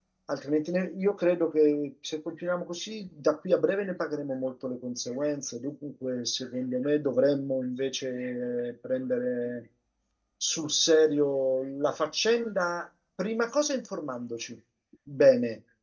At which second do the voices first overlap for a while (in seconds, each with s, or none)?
none